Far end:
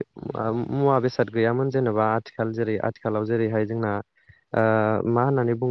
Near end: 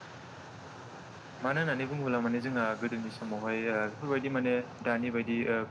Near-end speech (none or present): present